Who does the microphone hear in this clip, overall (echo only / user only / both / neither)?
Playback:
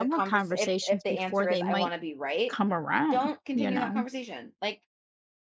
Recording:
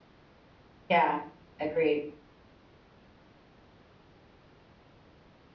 user only